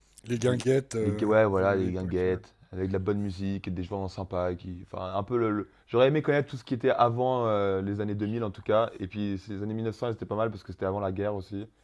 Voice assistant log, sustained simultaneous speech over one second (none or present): present